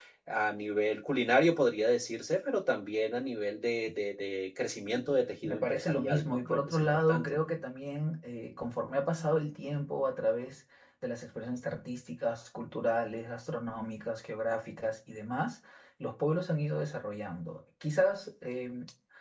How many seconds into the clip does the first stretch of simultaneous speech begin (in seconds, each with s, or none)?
5.4 s